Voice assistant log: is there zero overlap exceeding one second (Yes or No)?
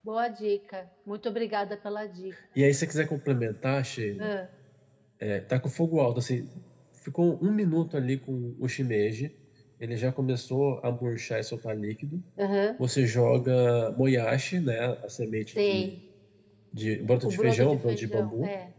No